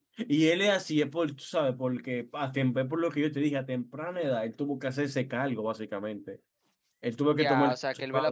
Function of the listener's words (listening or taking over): taking over